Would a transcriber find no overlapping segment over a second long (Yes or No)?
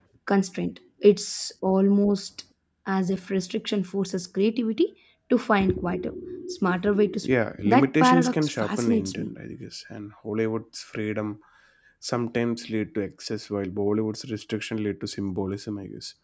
No